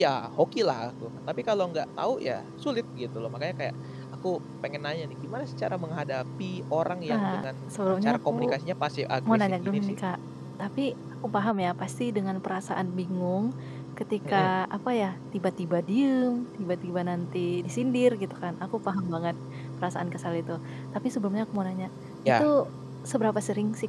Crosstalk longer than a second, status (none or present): present